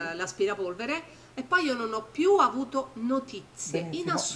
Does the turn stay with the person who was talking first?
No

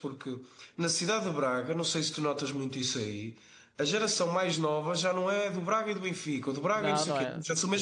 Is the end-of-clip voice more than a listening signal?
Yes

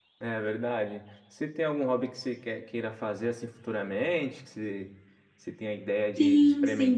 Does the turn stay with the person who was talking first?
No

